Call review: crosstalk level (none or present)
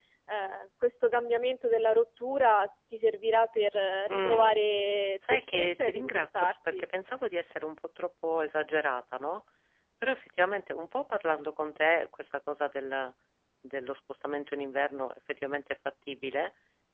present